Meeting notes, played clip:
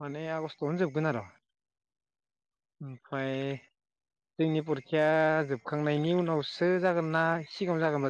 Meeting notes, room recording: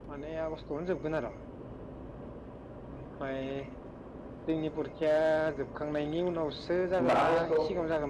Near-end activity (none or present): present